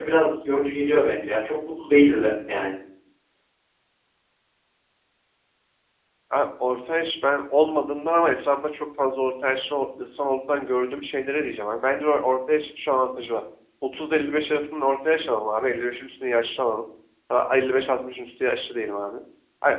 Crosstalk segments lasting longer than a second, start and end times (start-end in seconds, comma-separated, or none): none